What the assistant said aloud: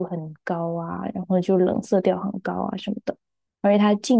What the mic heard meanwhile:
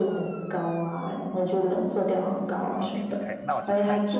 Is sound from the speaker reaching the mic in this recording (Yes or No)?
Yes